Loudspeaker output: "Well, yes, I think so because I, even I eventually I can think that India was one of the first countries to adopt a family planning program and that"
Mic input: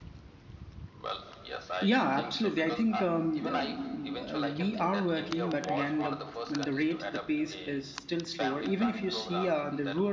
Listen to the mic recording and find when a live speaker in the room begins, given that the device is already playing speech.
2 s

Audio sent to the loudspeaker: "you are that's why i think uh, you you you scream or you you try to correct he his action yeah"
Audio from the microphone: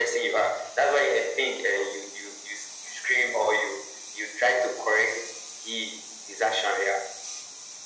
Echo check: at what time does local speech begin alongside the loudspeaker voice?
none

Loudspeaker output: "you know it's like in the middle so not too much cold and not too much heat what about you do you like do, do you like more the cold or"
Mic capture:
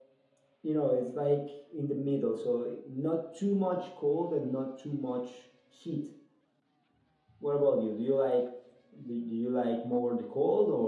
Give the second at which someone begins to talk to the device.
none

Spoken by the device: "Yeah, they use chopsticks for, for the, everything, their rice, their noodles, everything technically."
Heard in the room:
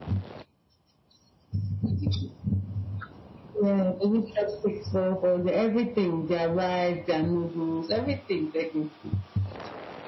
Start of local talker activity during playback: none

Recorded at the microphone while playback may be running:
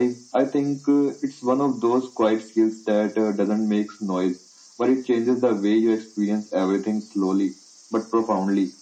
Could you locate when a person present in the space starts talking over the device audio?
none

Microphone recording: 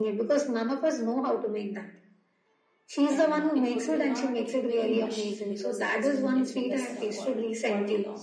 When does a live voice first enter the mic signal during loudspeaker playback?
3 s

